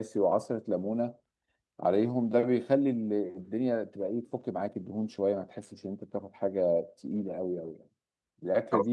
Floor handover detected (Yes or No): No